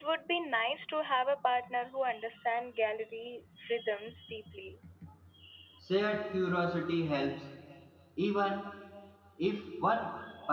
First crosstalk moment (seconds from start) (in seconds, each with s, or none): none